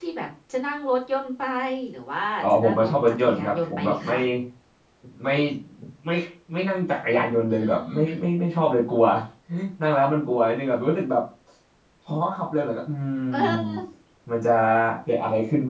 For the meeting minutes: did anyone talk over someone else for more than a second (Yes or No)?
Yes